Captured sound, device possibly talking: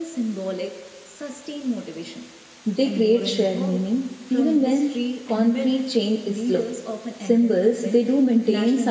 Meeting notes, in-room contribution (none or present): present